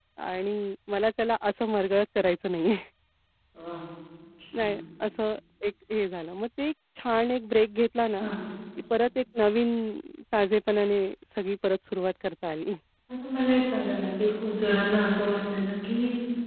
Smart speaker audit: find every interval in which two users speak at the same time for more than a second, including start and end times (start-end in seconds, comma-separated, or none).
none